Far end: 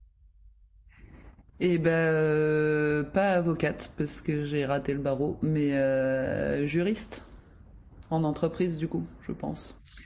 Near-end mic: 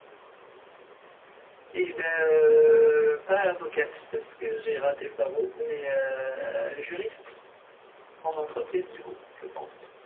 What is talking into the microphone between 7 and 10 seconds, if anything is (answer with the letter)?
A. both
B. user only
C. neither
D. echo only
D